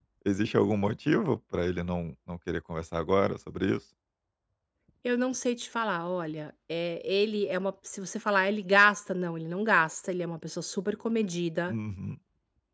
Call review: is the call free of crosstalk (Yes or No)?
Yes